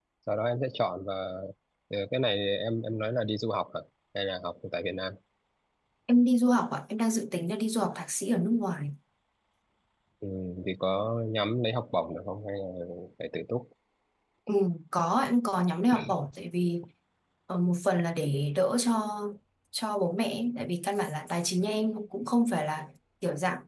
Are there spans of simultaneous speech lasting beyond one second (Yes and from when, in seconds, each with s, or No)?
No